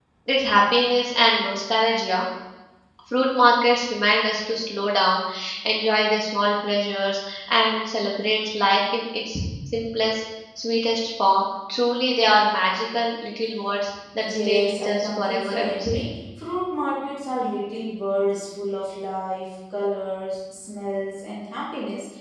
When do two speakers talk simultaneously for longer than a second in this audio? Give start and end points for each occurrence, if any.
14.3-16.0

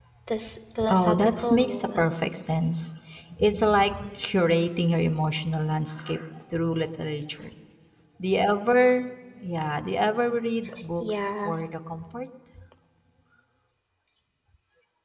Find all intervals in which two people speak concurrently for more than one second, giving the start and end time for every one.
0.9-2.1

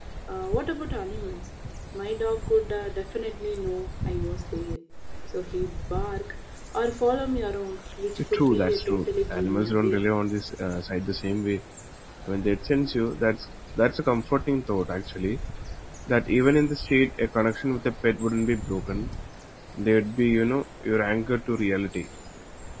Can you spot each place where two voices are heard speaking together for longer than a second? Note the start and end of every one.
8.3-10.1

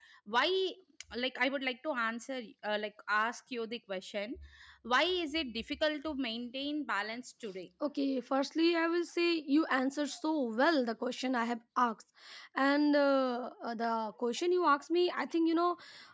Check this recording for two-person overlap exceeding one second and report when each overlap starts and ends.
none

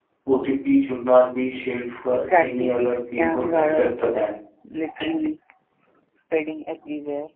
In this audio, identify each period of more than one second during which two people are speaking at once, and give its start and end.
2.1-3.9

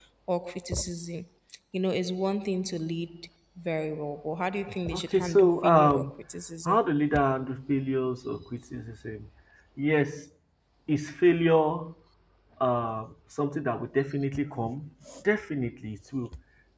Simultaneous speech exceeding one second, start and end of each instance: 4.9-6.2

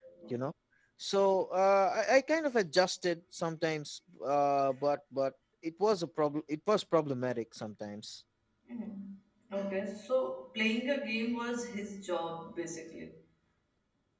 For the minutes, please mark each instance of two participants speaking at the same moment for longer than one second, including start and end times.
none

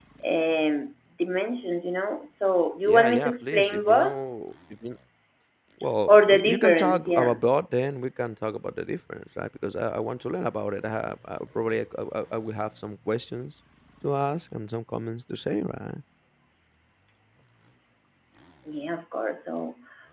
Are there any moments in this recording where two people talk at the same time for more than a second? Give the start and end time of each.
2.8-4.2, 6.1-7.4

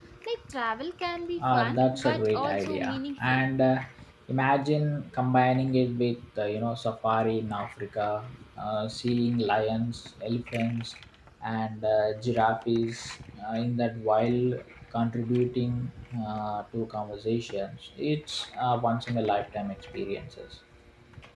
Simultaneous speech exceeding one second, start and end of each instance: 1.4-3.4

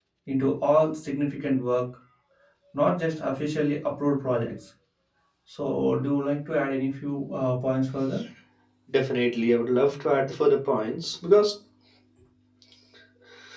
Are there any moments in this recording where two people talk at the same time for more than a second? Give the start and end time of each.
none

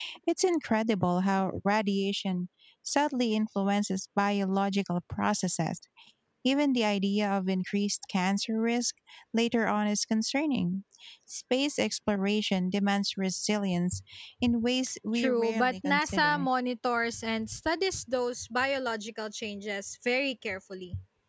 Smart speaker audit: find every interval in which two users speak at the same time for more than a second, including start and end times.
15.2-16.4

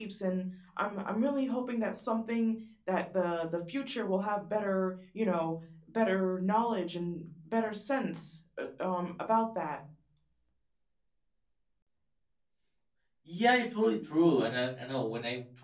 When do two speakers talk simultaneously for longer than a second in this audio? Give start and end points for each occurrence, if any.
none

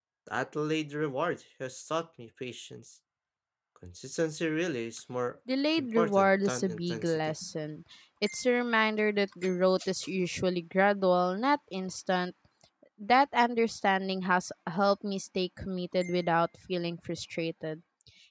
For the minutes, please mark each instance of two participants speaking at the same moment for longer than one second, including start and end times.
5.8-7.2

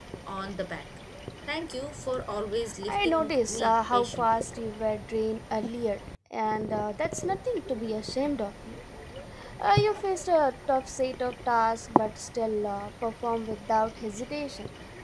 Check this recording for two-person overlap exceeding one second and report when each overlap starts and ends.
2.9-4.3

